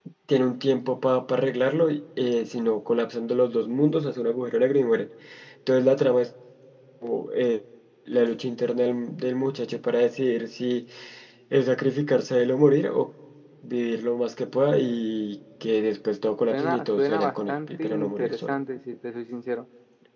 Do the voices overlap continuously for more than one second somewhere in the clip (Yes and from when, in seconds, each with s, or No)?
Yes, from 16.5 s